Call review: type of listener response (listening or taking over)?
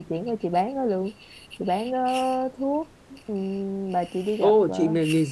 taking over